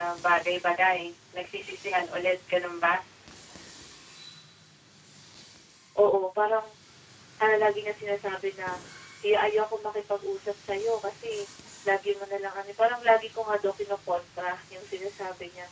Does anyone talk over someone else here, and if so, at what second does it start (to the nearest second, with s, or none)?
none